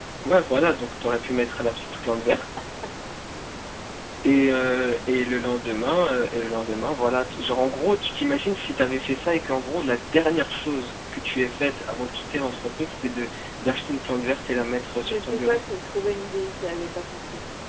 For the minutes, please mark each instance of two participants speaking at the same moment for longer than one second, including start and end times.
none

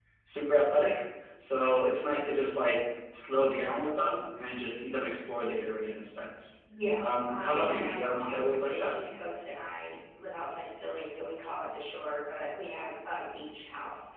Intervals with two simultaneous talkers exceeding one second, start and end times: 7.0-8.9

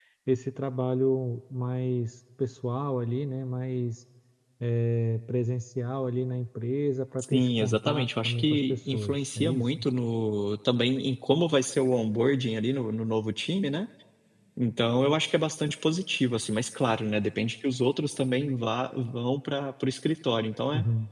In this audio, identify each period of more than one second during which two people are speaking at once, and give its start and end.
7.2-9.7

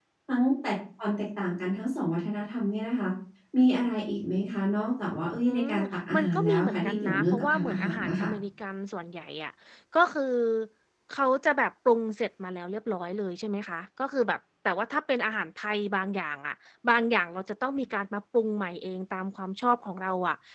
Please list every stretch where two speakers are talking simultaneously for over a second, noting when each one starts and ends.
6.1-8.3

